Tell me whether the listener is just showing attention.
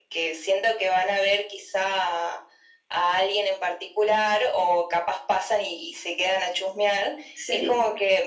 Yes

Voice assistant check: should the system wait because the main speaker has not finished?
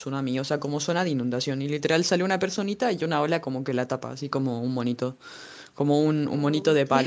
Yes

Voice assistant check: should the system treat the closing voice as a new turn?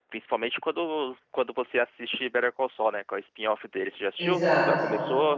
Yes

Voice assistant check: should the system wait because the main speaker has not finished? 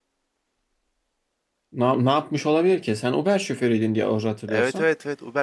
No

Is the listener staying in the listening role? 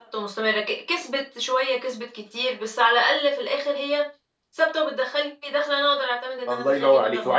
No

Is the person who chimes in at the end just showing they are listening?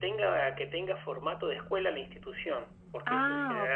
Yes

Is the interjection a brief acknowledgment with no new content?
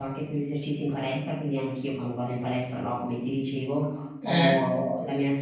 Yes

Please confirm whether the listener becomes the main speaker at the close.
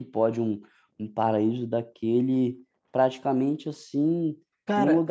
No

